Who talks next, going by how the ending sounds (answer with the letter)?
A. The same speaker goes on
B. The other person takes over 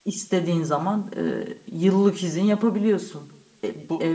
A